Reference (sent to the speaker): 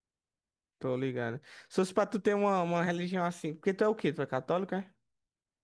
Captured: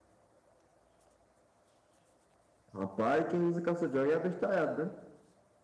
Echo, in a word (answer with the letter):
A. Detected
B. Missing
B